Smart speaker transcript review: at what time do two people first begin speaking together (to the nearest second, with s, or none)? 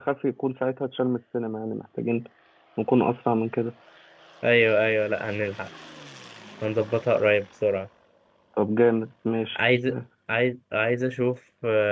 none